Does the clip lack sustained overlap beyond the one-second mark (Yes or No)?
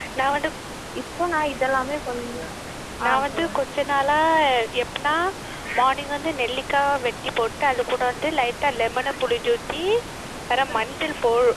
Yes